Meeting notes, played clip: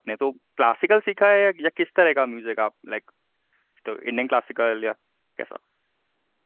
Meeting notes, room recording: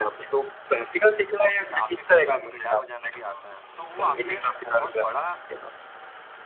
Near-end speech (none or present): present